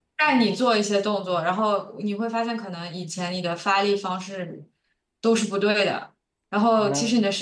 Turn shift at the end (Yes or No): No